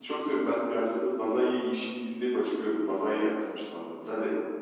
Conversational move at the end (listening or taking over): taking over